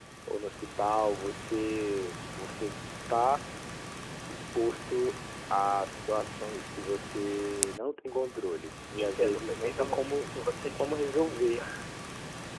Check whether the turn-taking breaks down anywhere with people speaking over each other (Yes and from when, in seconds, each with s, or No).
Yes, from 9.0 s